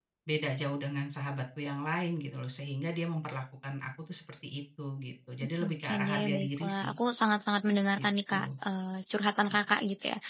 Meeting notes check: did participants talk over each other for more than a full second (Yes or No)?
Yes